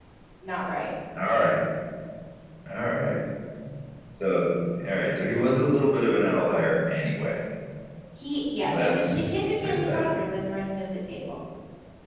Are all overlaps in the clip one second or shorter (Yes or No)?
No